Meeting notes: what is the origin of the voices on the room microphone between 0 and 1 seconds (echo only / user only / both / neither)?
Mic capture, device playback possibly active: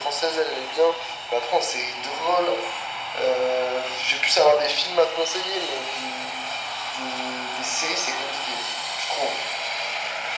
echo only